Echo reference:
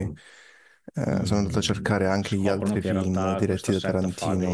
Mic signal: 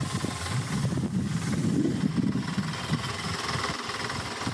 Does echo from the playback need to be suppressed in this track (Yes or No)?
No